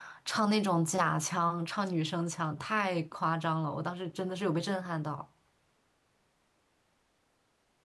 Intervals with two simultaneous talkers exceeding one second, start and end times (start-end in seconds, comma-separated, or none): none